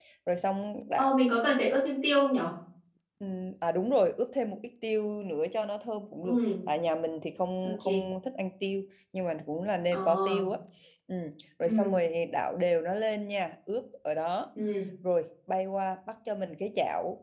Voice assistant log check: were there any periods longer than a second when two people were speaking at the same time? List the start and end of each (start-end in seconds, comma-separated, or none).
none